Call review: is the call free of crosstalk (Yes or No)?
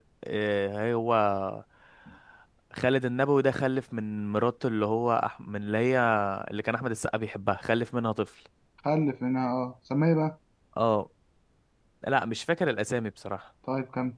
Yes